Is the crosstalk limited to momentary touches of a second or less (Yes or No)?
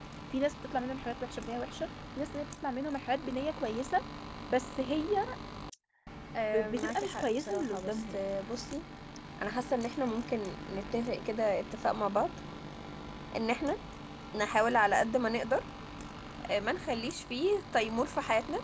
No